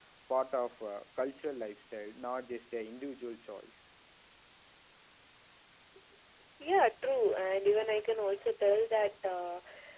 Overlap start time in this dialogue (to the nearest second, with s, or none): none